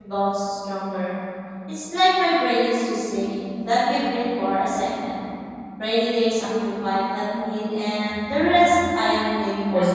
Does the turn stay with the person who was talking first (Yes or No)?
No